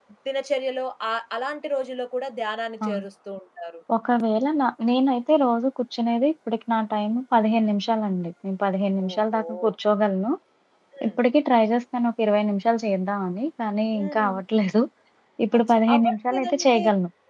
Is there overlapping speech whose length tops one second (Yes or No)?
Yes